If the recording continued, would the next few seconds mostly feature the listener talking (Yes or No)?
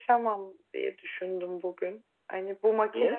No